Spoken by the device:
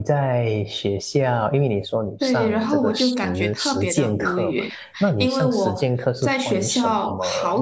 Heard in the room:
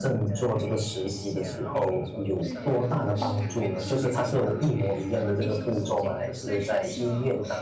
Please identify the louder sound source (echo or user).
user